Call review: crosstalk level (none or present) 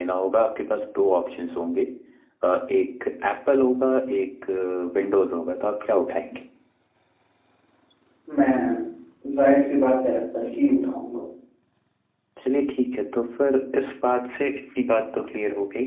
none